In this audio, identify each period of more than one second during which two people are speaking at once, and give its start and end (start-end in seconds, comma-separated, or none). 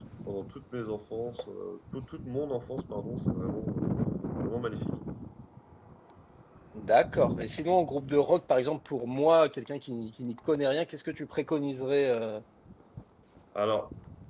none